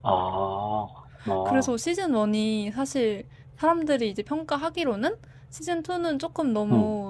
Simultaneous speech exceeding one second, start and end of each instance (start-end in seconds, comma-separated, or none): none